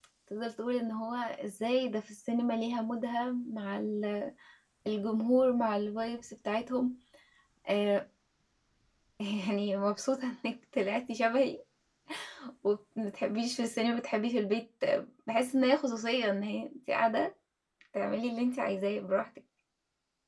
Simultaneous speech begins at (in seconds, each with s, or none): none